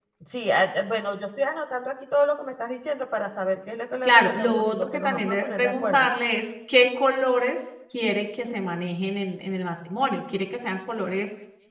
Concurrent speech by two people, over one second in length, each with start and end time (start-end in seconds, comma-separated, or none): 4.0-6.1